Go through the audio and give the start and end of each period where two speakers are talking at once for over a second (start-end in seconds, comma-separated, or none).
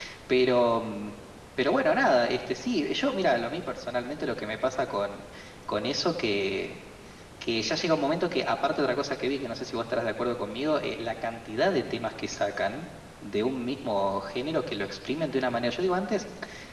none